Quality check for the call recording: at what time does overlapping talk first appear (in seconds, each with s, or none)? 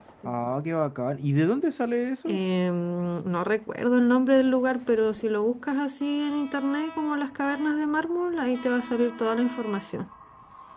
none